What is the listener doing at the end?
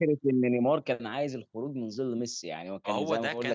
taking over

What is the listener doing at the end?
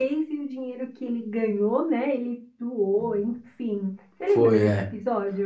taking over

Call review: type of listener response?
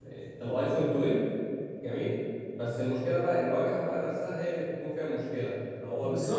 taking over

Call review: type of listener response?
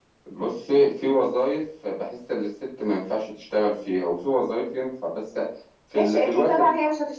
taking over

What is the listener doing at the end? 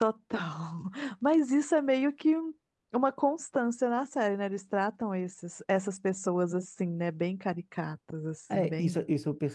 taking over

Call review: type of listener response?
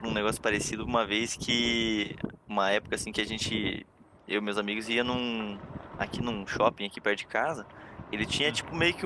listening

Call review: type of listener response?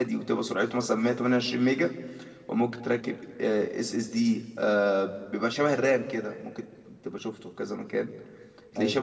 listening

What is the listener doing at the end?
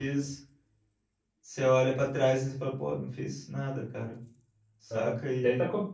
taking over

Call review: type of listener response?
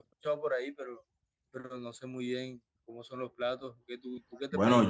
taking over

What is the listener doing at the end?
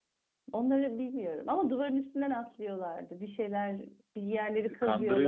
taking over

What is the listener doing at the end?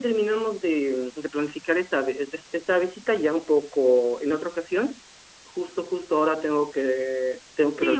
taking over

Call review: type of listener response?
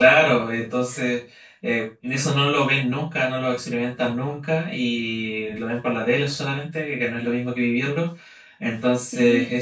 listening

